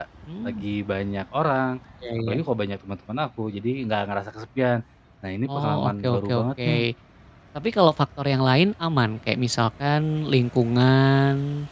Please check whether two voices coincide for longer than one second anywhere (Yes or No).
Yes